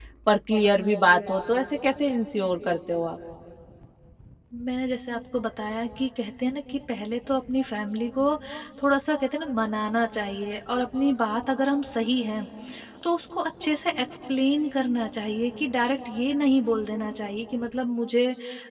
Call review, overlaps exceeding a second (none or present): none